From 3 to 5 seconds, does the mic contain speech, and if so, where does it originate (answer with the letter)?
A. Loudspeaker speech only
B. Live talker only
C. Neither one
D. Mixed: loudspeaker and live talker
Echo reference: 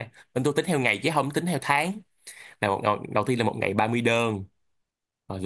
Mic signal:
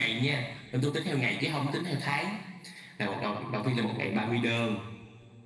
A